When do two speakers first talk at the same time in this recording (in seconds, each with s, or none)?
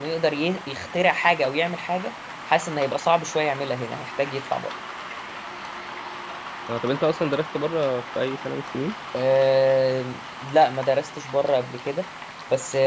none